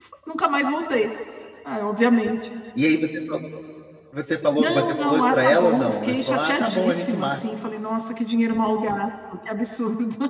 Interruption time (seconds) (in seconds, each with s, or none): 4.6 s